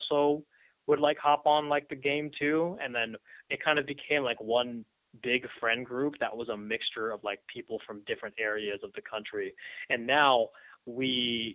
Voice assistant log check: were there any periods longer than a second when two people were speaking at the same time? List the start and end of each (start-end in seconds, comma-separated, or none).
none